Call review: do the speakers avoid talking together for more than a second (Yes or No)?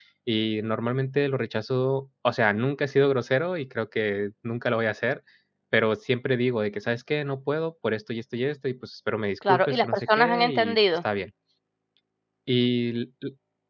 No